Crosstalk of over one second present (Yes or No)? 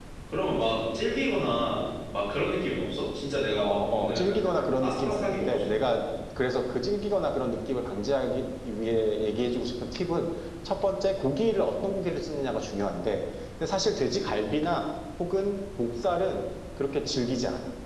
Yes